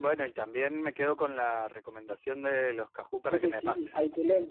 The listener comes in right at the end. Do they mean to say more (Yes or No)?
Yes